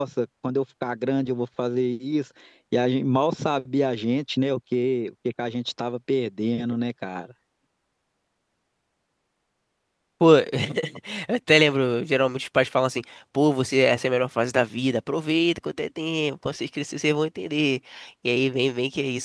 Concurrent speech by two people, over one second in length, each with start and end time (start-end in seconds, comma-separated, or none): none